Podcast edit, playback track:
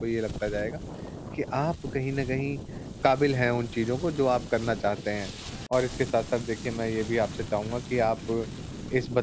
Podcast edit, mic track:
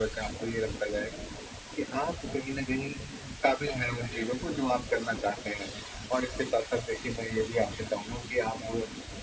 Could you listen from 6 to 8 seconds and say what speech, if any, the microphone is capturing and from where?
echo only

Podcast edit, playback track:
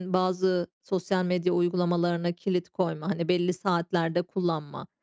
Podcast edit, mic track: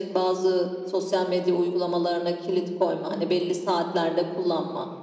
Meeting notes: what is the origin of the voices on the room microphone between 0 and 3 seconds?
echo only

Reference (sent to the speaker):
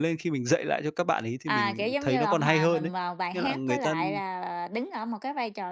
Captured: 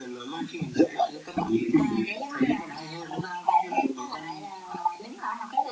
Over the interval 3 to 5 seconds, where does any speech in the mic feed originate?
echo only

